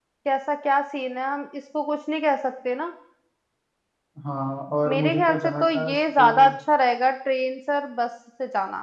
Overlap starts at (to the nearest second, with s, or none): 5 s